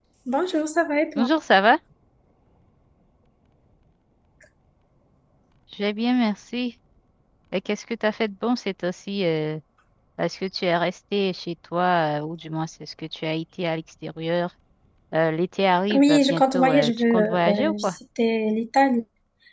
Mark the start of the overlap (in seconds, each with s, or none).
15.9 s